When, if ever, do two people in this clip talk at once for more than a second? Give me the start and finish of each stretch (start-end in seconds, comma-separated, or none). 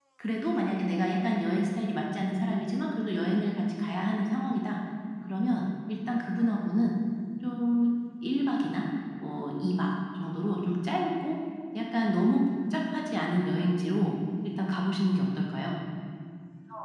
none